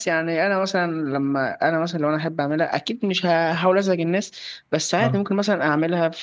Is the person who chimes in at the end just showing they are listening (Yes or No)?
Yes